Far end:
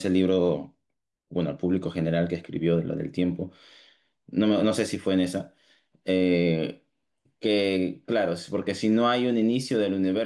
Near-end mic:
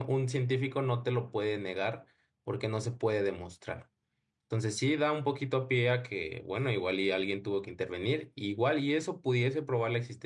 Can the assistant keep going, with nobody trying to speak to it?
No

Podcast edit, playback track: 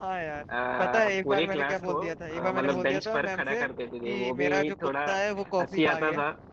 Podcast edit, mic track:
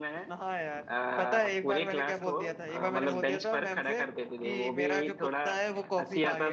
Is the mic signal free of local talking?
Yes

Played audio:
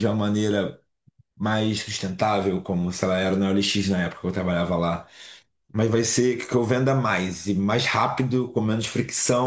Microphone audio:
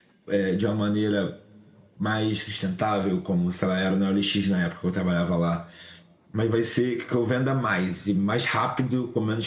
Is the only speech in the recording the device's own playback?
Yes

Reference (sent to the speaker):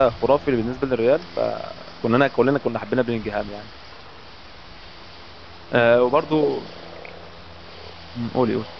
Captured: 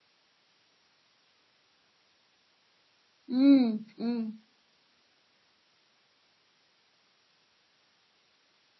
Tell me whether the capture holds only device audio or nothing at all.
No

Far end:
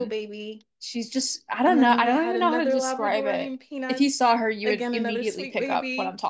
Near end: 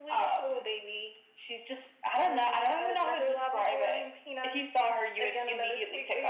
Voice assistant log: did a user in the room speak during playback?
No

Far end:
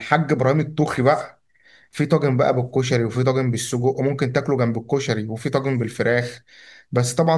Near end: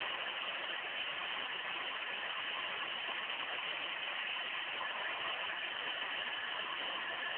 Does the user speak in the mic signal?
No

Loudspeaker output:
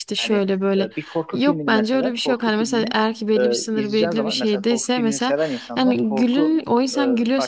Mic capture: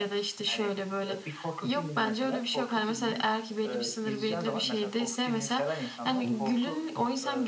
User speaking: No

